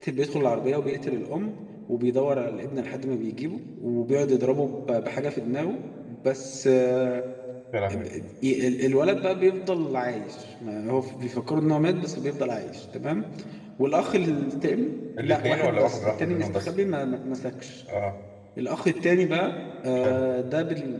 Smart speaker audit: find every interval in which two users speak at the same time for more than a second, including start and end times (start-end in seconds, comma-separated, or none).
15.2-16.7